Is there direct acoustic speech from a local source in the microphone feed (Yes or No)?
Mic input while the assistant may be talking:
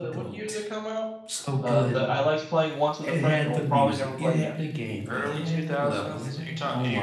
Yes